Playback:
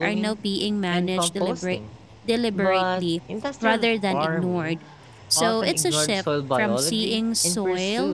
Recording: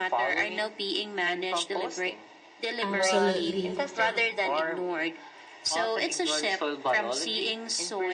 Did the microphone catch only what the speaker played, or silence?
No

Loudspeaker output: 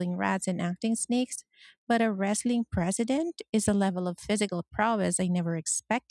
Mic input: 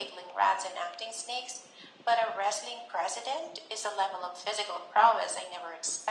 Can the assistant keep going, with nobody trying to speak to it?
Yes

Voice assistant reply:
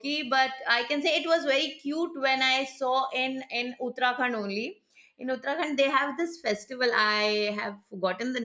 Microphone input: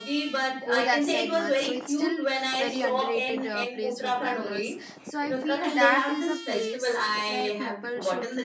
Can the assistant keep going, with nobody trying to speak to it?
No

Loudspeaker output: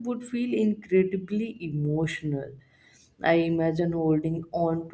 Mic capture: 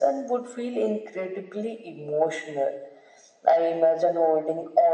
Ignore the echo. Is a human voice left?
No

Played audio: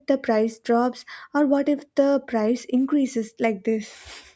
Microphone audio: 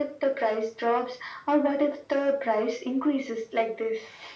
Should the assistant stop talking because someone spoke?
No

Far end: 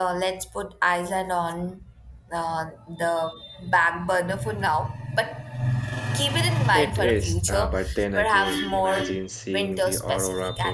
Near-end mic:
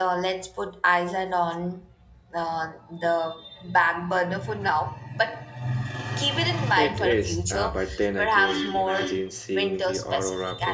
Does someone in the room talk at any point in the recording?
No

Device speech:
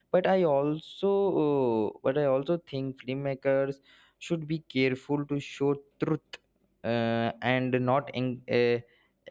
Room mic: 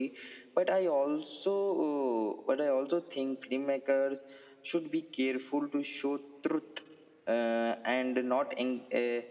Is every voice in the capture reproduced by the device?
Yes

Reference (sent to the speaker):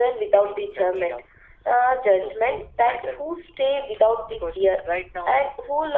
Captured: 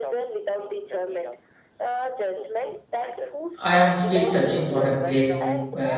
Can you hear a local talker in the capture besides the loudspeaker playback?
Yes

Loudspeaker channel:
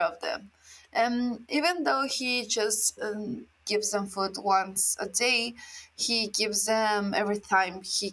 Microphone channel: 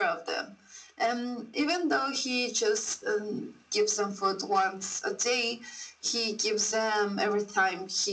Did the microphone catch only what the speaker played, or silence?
Yes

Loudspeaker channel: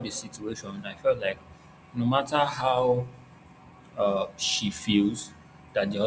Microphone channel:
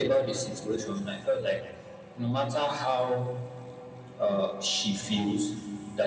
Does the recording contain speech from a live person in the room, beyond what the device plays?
No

